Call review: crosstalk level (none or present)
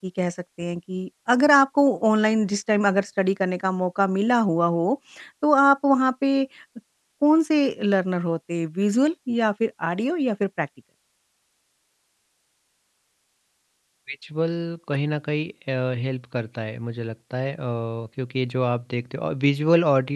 none